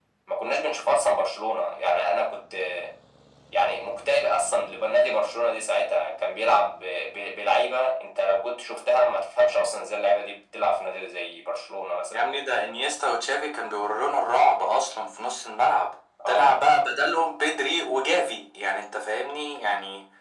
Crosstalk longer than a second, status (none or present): none